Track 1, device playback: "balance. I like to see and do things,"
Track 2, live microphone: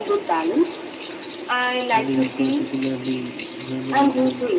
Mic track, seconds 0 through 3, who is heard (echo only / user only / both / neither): both